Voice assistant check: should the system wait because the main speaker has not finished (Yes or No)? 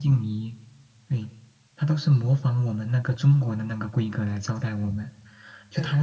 Yes